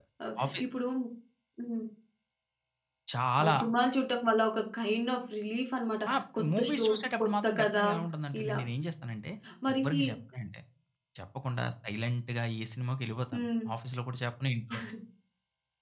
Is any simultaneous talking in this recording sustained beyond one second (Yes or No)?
Yes